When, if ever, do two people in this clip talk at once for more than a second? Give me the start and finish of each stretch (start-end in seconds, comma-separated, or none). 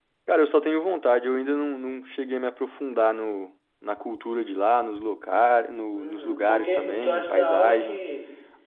5.9-8.0